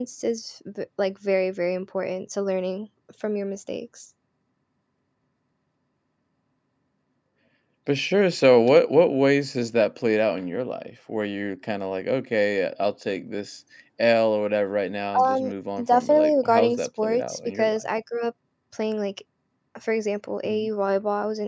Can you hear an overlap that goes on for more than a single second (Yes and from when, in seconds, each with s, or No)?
Yes, from 15.1 s